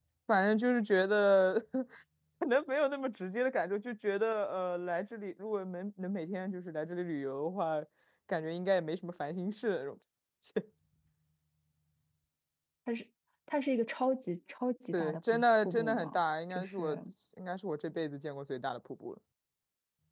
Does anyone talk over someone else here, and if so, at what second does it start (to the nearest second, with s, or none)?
15 s